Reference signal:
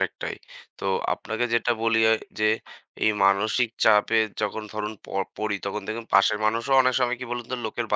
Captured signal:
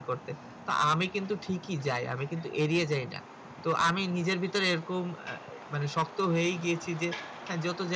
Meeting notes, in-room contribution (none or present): present